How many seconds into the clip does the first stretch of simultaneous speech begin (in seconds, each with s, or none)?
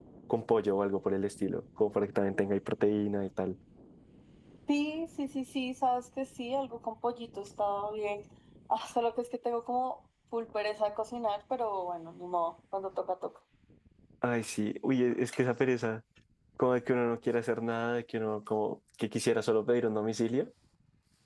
none